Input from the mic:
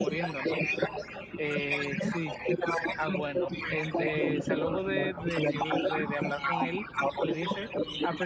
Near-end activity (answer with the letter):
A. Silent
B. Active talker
B